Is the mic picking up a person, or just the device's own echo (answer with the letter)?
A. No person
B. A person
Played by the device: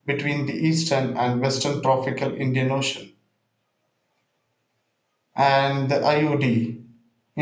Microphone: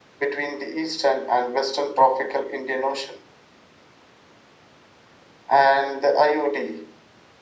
A